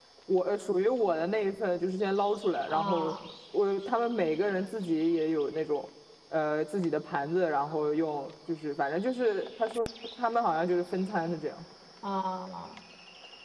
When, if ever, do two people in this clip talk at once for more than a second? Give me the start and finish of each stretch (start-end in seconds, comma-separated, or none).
none